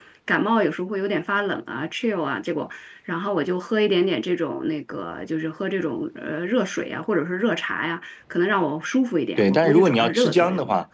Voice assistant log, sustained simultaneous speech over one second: present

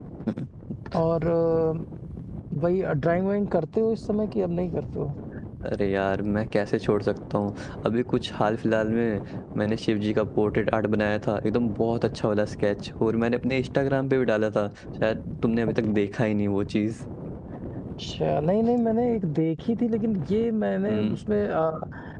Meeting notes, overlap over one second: none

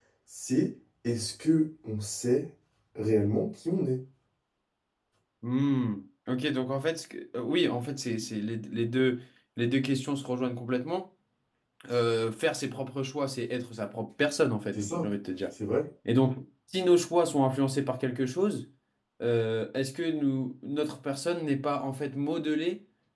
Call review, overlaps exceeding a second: none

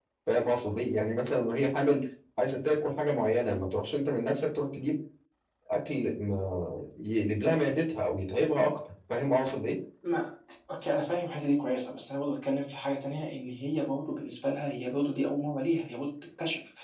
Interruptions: none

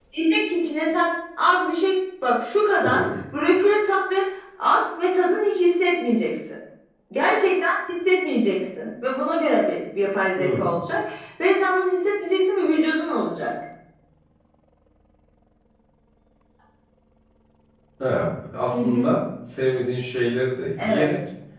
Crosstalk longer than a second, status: none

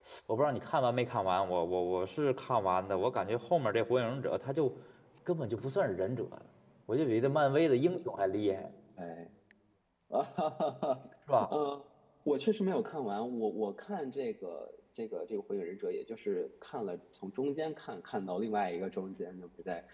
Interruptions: none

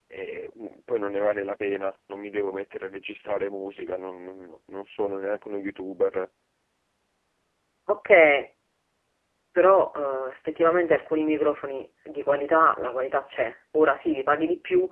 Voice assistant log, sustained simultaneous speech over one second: none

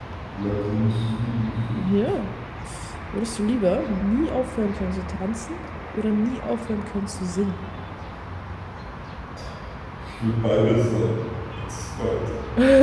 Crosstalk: none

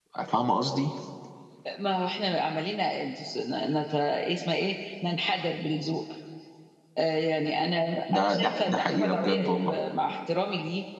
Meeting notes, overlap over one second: present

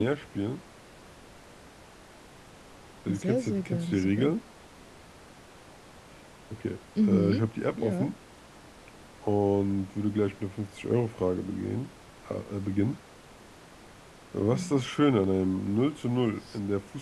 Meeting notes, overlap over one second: present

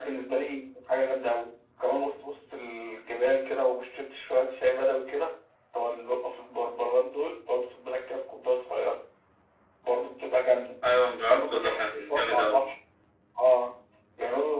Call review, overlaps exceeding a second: present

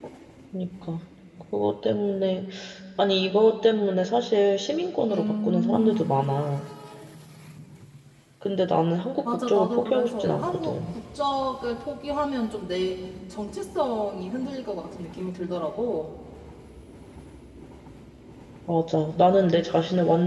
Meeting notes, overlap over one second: present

